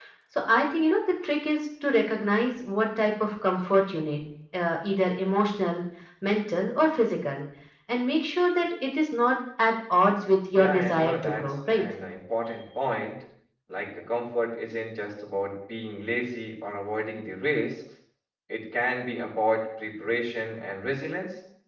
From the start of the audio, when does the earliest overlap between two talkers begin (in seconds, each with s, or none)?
10.5 s